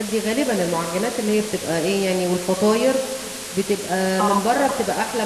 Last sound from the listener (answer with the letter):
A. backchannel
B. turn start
A